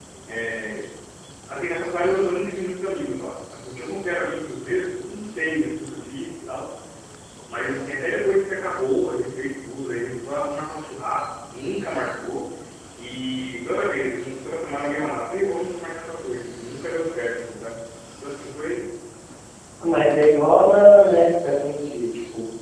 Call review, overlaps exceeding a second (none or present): none